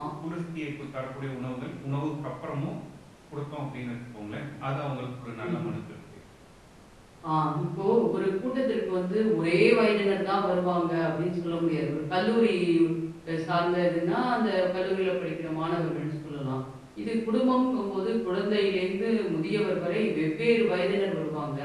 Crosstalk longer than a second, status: none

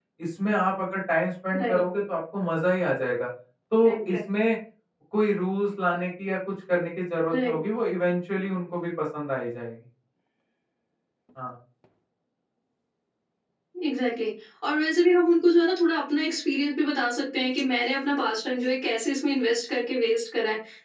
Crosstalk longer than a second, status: none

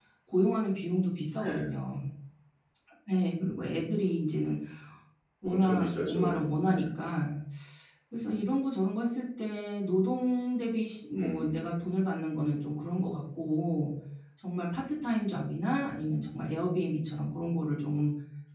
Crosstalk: present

